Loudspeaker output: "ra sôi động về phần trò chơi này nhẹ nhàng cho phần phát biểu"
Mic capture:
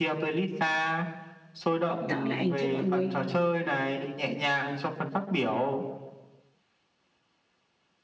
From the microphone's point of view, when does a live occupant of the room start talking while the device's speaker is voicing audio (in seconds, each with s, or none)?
2.0 s